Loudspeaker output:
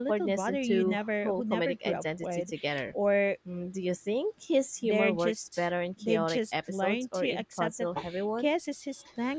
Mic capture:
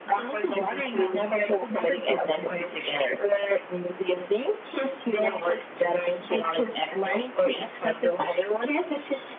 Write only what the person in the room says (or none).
none